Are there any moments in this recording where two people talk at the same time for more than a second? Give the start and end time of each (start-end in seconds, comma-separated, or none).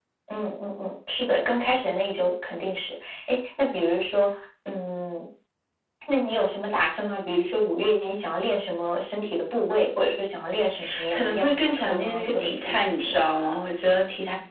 11.1-13.2